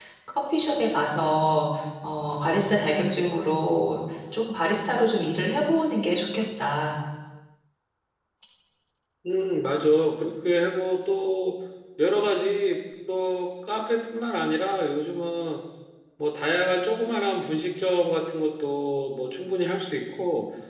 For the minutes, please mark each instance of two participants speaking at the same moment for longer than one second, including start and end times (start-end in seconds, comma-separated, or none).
none